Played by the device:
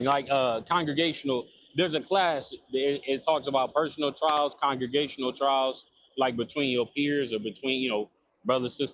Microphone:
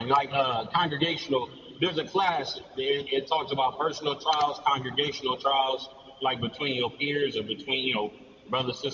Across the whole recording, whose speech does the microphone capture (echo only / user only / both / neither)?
echo only